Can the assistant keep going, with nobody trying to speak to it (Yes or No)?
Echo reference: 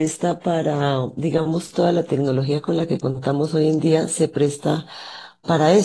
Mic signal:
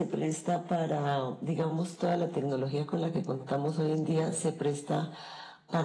No